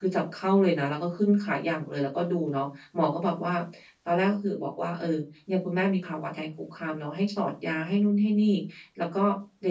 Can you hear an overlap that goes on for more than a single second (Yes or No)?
No